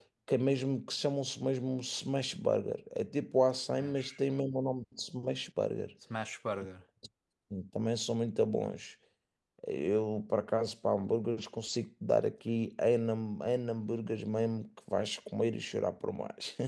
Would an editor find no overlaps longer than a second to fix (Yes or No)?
Yes